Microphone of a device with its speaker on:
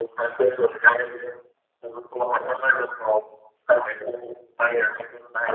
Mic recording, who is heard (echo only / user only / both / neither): echo only